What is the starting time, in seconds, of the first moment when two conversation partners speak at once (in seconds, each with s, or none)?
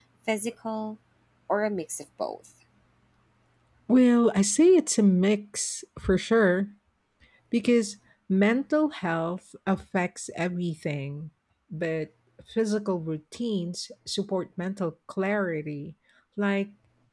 none